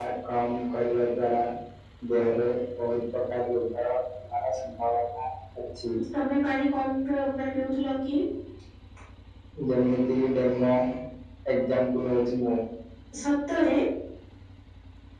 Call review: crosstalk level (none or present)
none